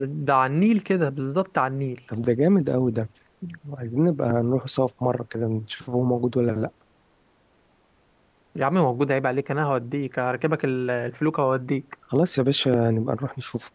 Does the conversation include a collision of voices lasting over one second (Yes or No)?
No